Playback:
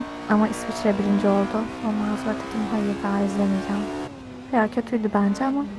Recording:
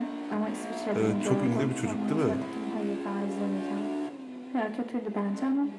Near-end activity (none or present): present